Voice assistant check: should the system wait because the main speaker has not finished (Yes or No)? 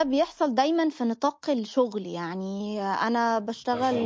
Yes